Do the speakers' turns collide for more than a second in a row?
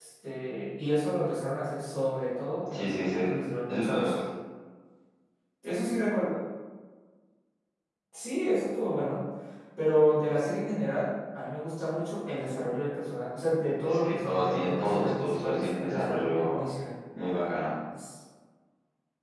Yes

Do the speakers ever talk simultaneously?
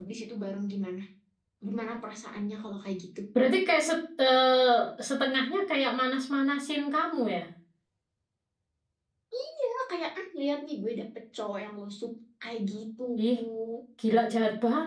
No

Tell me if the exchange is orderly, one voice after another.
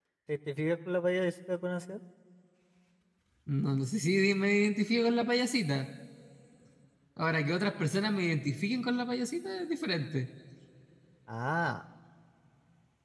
Yes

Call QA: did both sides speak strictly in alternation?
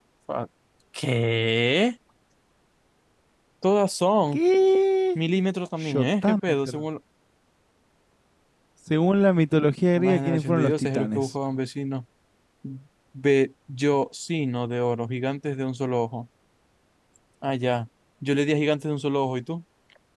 No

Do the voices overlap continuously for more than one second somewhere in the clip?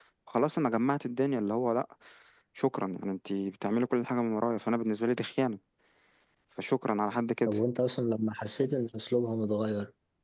No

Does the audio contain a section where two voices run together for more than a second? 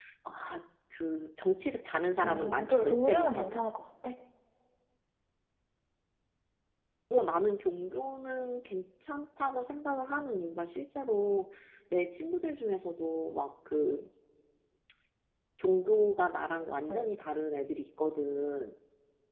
Yes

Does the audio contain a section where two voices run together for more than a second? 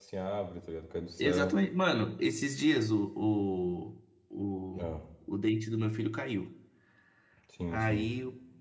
No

